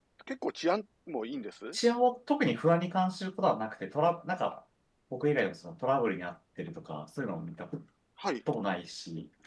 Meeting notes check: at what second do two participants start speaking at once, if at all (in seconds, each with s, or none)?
none